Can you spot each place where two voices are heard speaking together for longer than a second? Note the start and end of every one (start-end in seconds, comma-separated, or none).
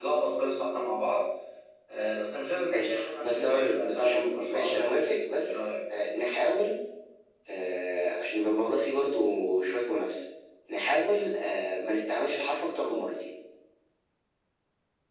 2.6-4.9